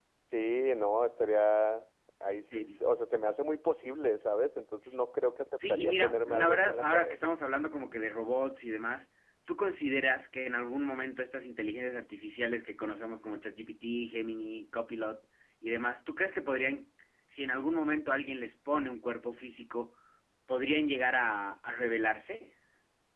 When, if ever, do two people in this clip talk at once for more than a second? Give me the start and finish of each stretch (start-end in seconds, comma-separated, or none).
5.7-7.3